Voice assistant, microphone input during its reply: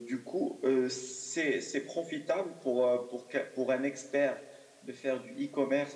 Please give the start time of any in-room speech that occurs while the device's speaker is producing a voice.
none

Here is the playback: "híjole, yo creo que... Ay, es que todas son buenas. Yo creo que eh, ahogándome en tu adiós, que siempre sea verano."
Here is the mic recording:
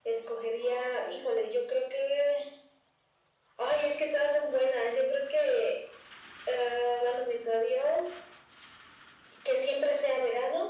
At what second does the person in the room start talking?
none

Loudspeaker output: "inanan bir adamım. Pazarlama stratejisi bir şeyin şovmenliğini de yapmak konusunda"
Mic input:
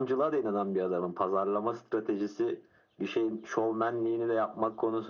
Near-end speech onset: none

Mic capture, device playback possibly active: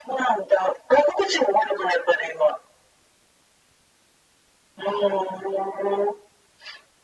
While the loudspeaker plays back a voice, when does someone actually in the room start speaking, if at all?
none

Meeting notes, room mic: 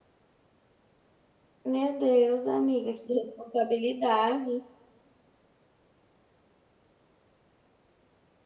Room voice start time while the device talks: 1.6 s

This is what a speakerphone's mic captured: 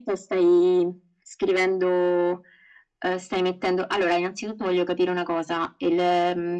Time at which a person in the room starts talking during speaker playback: none

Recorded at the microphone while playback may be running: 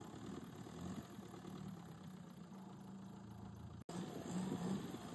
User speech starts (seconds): none

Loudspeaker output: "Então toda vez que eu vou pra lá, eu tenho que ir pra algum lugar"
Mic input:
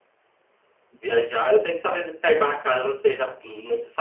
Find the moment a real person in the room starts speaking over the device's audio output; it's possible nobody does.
1.0 s

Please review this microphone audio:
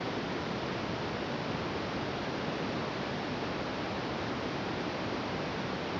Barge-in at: none

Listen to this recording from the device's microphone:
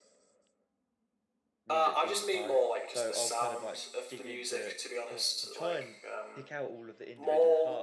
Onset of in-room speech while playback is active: 1.7 s

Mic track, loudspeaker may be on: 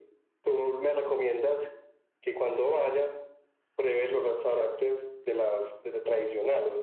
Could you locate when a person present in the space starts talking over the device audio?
none

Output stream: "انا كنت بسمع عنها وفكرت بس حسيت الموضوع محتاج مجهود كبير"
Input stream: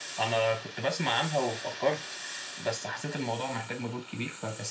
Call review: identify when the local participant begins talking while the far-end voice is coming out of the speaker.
none

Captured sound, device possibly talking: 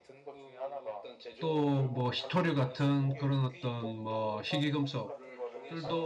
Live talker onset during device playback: 1.4 s

